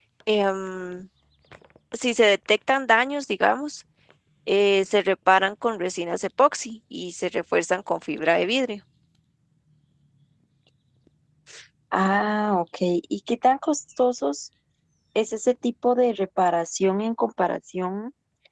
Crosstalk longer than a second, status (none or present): none